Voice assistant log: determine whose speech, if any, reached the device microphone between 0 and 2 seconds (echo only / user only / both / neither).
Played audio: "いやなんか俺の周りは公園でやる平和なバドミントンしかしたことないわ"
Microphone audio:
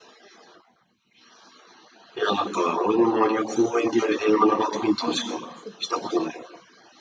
neither